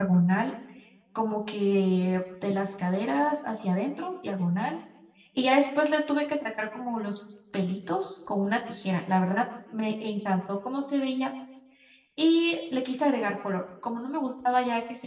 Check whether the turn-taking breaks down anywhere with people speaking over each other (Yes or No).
No